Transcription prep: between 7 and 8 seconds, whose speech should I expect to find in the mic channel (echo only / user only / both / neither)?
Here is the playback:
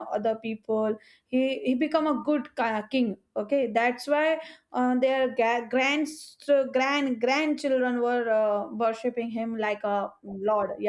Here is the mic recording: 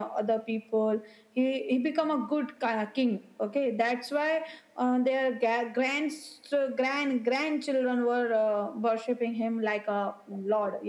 echo only